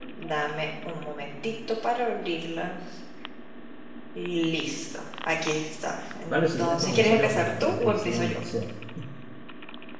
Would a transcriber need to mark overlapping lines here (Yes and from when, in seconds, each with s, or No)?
Yes, from 6.3 s